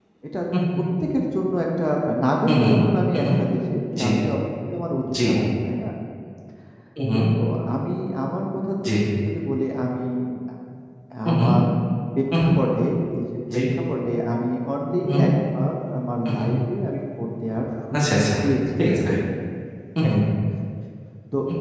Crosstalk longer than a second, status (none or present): none